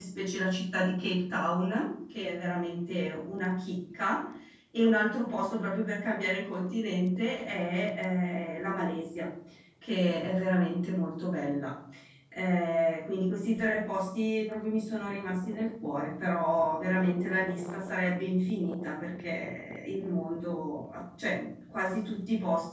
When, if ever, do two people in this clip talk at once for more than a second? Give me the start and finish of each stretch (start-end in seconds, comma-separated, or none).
none